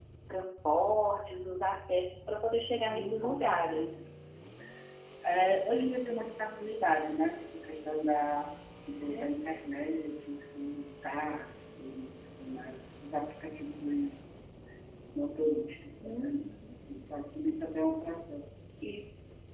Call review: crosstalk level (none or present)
present